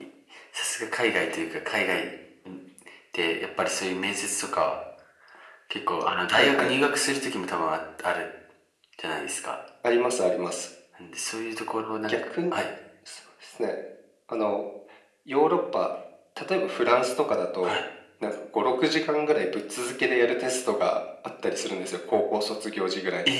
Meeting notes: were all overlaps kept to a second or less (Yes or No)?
Yes